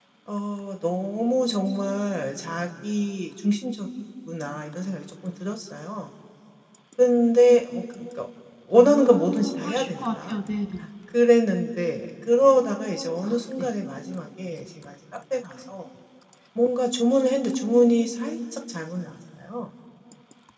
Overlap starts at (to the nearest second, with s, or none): 9 s